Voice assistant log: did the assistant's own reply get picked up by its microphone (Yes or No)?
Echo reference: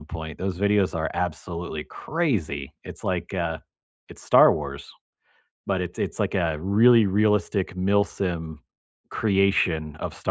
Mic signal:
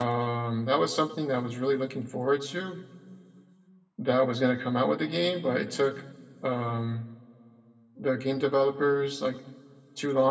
No